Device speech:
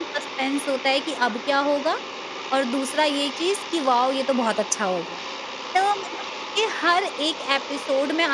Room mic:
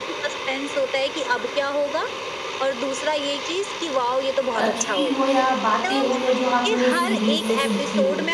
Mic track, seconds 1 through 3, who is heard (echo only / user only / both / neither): echo only